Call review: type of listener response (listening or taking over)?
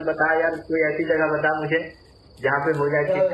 taking over